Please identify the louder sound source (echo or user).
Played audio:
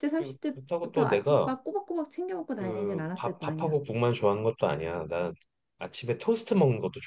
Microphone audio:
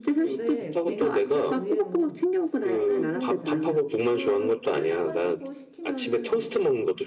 echo